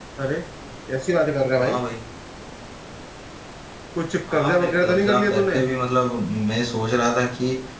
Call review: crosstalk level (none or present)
present